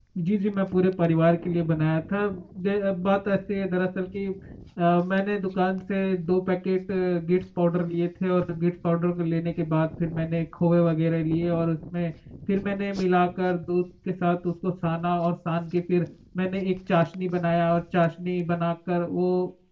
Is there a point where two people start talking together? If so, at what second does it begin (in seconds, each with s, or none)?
none